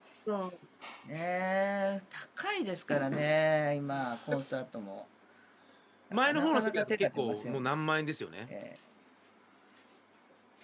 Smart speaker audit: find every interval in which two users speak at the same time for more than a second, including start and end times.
6.2-7.7

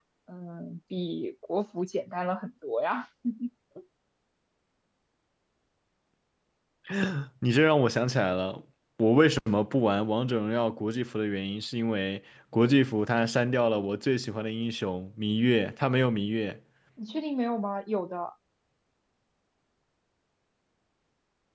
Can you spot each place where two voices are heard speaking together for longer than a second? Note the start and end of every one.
none

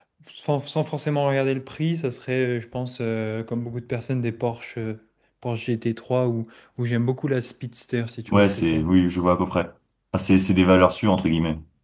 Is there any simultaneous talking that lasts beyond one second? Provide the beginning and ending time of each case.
none

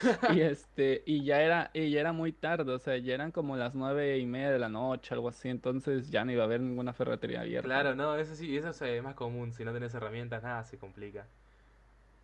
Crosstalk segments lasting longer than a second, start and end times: none

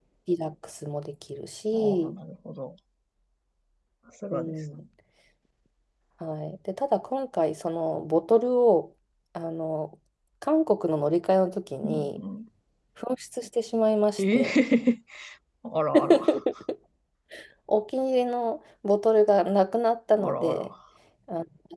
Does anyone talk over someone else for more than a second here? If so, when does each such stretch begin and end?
none

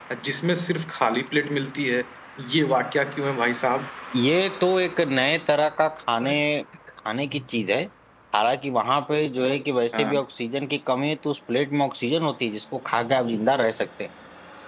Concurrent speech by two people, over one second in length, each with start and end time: none

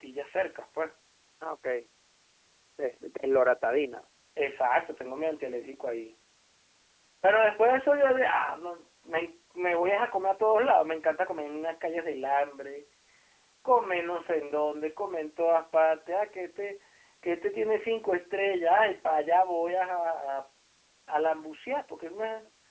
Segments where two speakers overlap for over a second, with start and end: none

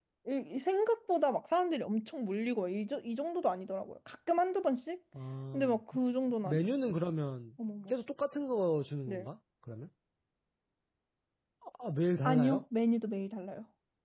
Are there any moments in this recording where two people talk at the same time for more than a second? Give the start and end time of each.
none

